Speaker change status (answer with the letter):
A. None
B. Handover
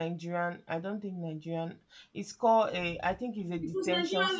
B